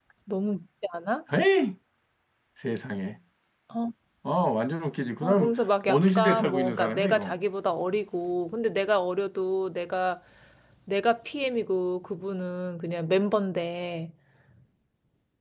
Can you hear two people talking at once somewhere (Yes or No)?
Yes